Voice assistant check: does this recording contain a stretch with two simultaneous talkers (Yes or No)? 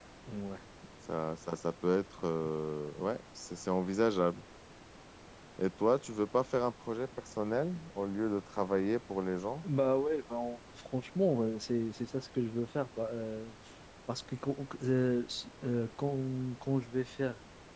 No